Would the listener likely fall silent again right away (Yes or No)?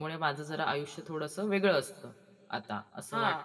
No